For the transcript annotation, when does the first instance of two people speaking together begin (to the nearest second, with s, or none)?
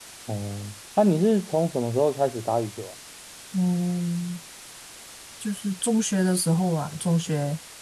none